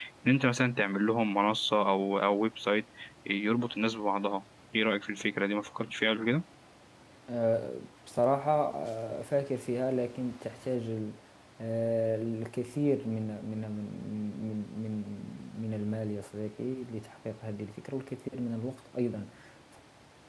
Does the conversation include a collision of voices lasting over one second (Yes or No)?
No